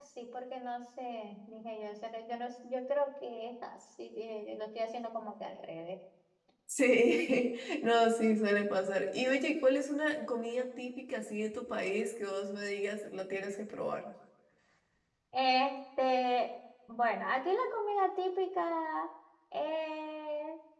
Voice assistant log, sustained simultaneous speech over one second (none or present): none